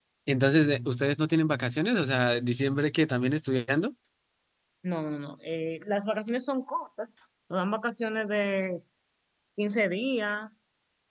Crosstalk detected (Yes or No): No